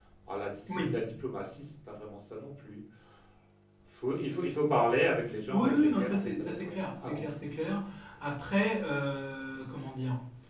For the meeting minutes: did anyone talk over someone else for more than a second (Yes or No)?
Yes